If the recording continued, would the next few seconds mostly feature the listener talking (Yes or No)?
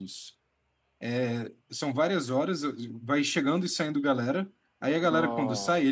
No